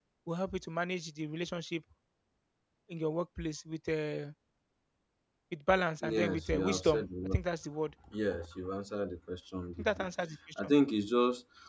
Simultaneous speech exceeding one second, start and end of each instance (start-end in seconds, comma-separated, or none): 6.0-7.4